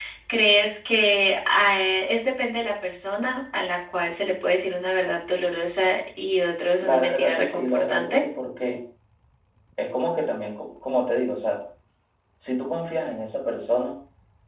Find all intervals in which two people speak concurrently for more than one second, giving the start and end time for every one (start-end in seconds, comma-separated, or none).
6.8-8.2